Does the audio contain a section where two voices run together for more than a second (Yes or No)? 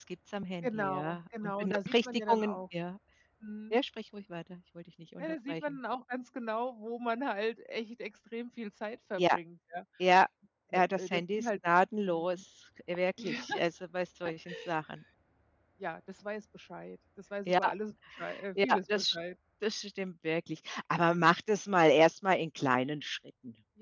Yes